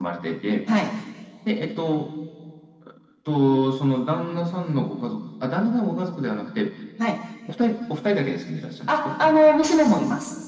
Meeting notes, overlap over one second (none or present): none